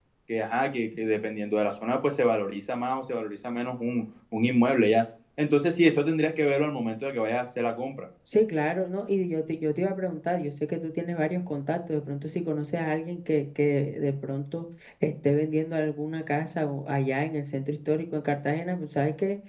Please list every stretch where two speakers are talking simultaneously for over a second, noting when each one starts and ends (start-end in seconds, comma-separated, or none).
none